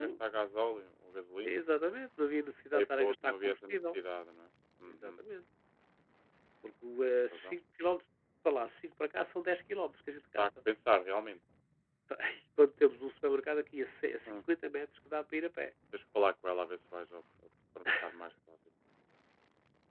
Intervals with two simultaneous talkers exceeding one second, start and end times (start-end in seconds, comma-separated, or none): 2.7-4.0